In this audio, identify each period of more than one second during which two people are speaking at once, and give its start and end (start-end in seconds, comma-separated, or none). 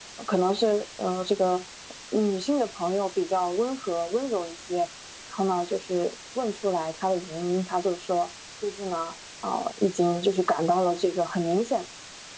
none